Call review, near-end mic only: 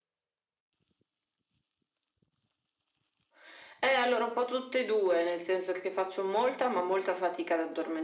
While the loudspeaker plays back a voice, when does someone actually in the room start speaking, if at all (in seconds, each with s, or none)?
none